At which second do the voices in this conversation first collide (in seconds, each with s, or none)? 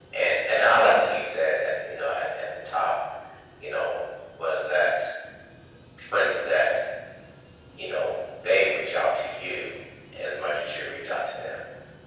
none